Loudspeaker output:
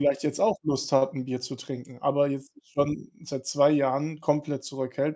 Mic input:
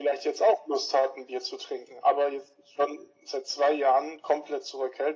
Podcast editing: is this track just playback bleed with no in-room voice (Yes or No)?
Yes